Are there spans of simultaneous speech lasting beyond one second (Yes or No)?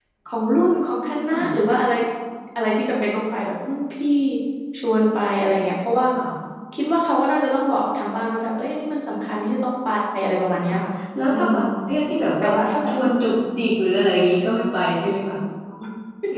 No